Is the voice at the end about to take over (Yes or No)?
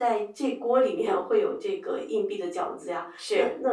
No